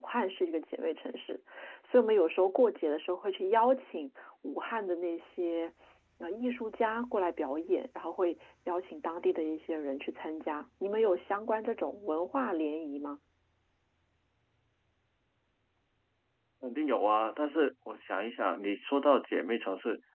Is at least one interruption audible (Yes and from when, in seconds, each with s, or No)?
No